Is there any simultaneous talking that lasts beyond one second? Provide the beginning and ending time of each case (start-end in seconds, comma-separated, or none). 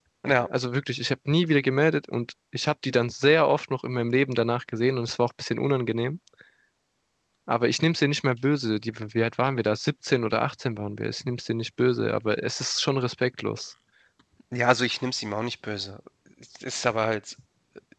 none